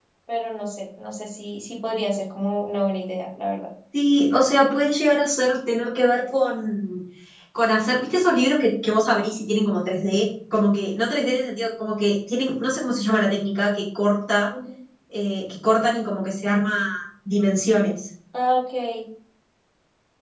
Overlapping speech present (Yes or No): No